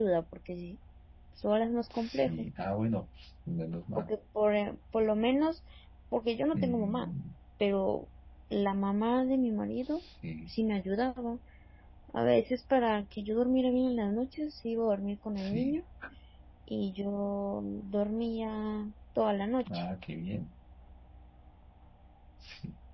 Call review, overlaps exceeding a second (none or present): none